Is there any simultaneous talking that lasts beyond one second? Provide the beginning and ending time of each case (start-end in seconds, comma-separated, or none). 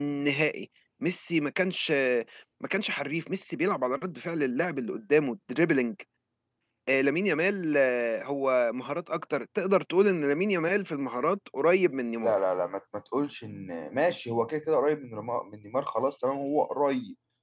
none